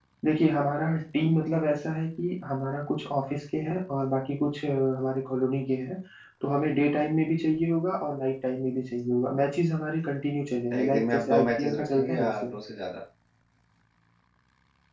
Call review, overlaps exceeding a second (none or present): present